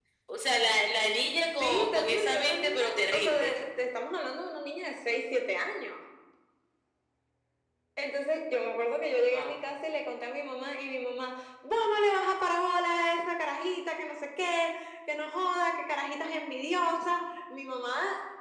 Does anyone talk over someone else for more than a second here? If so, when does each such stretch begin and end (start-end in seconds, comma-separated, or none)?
1.6-3.5